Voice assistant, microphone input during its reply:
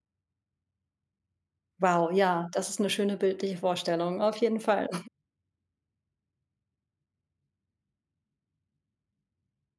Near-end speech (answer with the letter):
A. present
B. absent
A